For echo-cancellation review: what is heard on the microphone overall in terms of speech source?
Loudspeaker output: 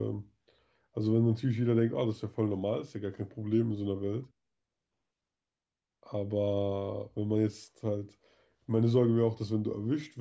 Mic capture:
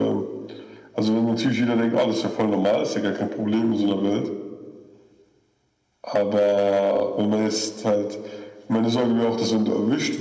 echo only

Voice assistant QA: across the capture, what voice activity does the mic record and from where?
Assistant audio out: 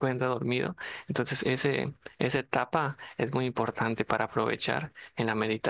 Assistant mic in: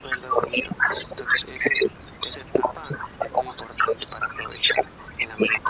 echo only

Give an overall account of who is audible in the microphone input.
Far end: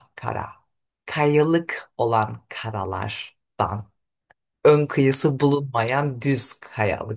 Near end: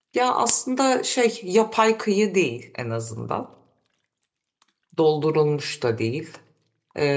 user only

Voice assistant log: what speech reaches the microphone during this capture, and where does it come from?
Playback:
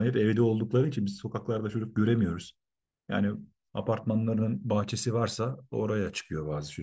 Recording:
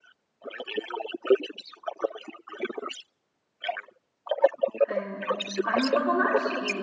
both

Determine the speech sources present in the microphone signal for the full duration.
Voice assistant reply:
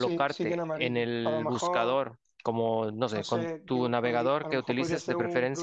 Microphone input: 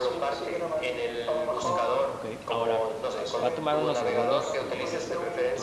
both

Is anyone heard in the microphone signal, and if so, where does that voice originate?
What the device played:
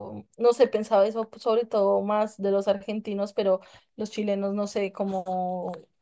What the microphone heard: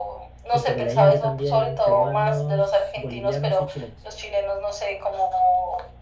both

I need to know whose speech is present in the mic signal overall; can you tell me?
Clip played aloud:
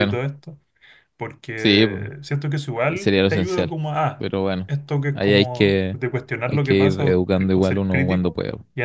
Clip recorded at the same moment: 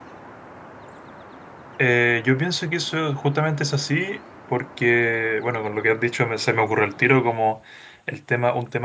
user only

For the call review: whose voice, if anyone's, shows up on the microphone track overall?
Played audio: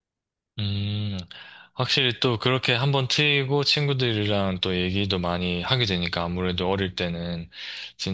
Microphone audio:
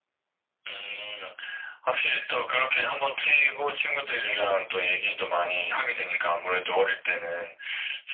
echo only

